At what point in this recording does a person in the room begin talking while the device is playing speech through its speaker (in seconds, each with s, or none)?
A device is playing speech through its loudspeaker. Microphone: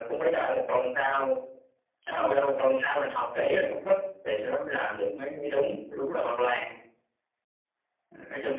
none